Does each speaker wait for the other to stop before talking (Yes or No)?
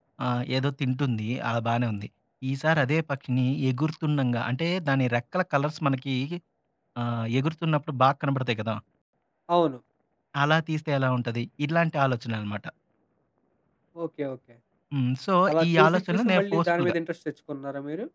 No